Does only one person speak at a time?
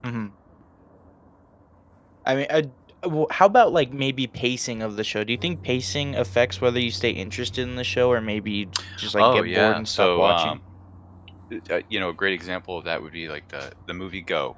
No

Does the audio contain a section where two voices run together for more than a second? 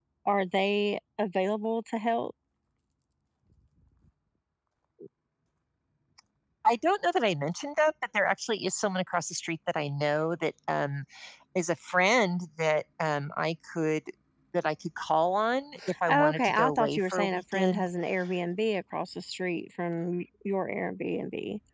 Yes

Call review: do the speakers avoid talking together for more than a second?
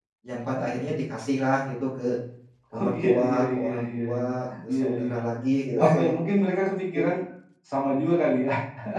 No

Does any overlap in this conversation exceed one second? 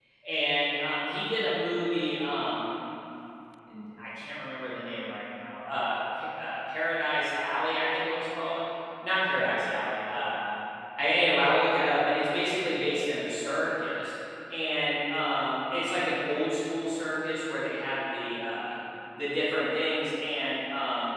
No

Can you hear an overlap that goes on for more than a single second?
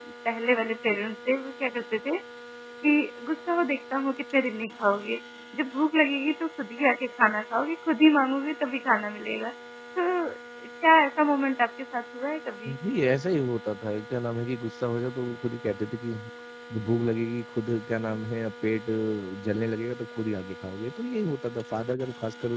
No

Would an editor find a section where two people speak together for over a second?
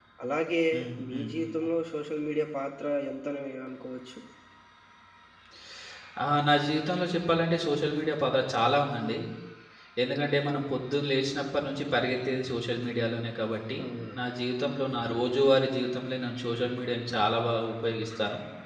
No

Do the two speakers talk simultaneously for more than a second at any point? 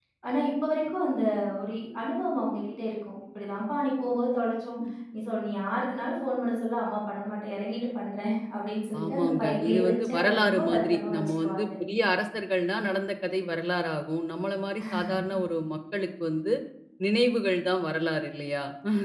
Yes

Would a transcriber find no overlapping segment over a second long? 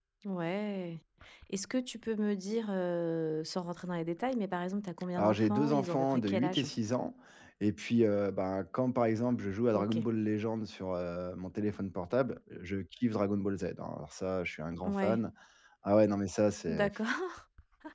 No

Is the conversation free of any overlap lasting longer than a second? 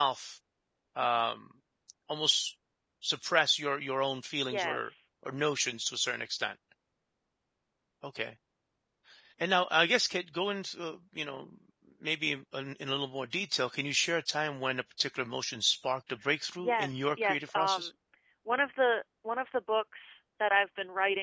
No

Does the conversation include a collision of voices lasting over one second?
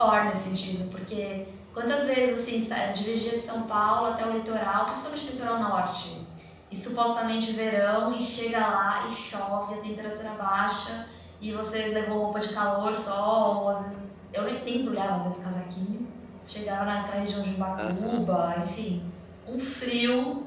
No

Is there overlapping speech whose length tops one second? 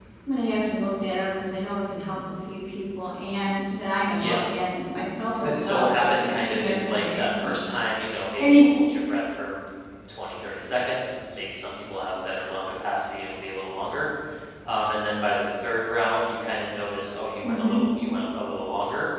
Yes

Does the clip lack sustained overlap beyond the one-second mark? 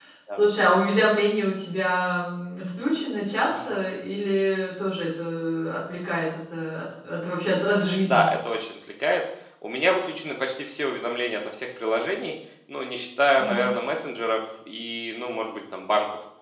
Yes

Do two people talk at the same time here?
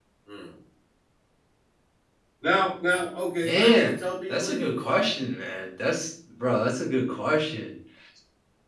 Yes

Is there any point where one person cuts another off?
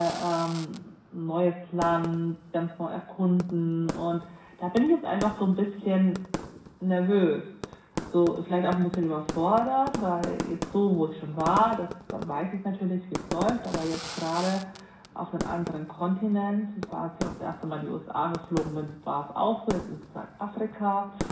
No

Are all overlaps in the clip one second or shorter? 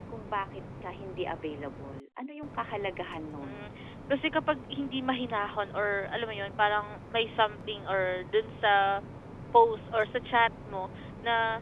Yes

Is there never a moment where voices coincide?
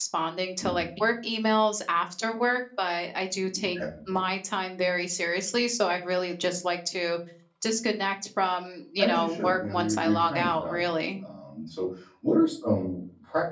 No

